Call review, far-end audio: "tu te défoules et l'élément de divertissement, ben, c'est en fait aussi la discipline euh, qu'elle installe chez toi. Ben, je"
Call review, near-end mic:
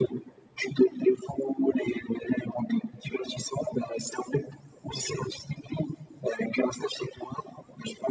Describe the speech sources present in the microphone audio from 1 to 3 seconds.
echo only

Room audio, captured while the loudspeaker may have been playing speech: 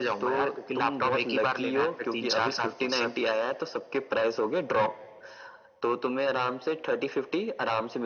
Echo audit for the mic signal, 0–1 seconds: echo only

